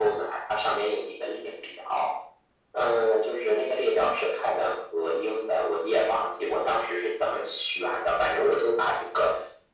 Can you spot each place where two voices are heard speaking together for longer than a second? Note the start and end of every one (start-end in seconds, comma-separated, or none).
none